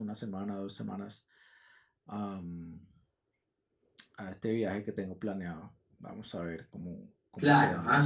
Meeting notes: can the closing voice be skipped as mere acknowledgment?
No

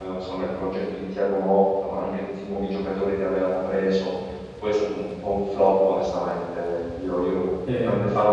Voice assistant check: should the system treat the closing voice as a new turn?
No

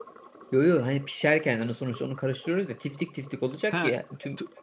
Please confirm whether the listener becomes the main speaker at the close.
Yes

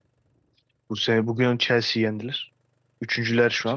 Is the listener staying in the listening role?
Yes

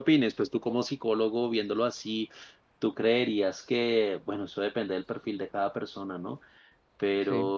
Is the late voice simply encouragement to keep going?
Yes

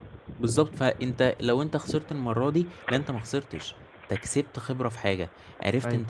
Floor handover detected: No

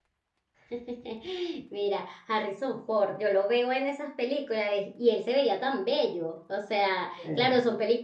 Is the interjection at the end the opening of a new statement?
No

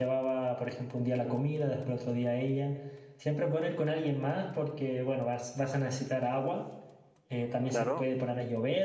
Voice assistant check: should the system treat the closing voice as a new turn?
No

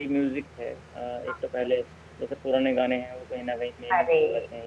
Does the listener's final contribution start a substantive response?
No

